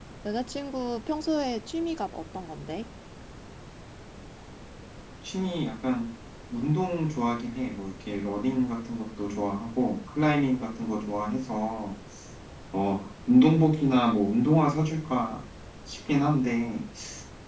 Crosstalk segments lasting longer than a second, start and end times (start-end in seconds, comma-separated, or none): none